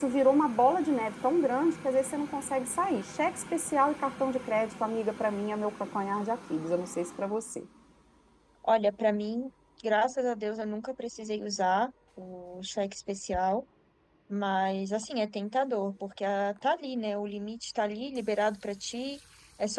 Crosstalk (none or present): none